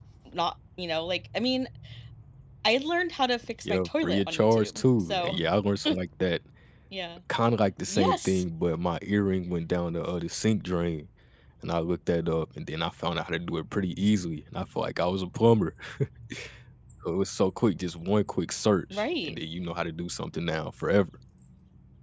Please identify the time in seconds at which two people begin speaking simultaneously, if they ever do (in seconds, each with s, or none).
3.6 s